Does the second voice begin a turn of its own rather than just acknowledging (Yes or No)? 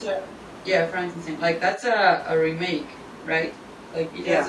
No